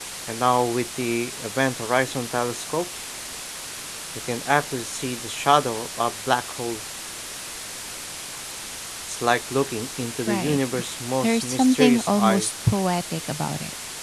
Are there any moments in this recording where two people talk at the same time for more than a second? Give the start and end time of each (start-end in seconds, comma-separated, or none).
11.2-12.5